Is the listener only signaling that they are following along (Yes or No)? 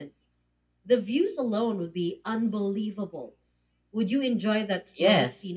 No